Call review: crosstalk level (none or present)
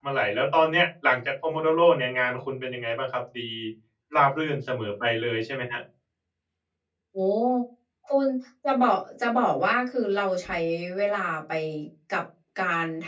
none